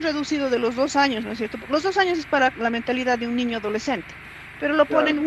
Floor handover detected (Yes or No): No